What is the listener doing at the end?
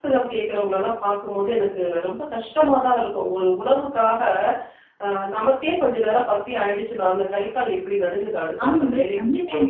listening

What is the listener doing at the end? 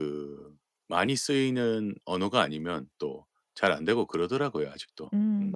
taking over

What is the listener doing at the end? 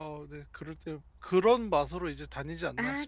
taking over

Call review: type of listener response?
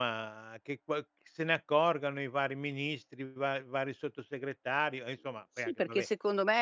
taking over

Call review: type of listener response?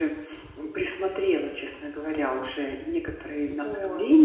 listening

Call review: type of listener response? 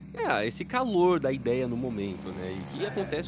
listening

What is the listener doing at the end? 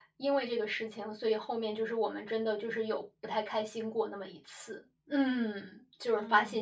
taking over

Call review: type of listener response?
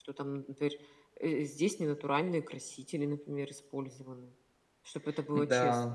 taking over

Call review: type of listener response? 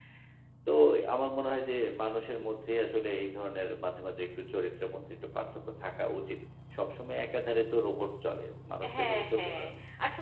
taking over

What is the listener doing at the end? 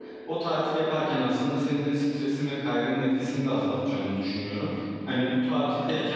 listening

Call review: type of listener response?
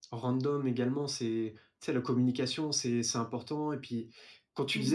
listening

